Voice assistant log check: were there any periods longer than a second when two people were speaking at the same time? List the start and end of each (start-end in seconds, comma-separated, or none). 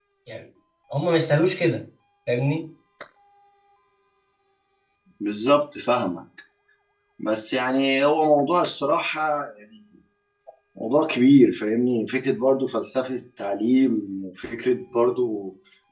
none